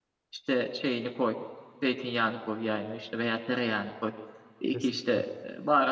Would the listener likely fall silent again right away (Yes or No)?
Yes